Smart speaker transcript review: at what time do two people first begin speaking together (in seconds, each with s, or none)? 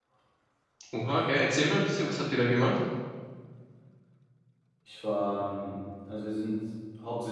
none